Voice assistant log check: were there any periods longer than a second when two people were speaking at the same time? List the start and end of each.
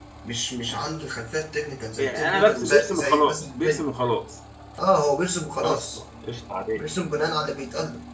2.0-3.8

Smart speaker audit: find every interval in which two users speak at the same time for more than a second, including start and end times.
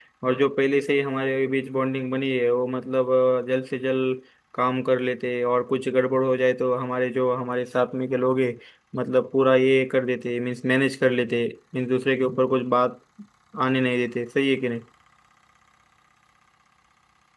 none

